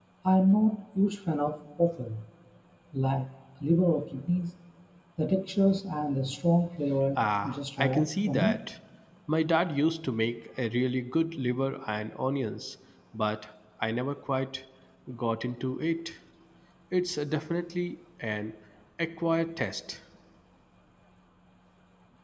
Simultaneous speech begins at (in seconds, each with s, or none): 7.2 s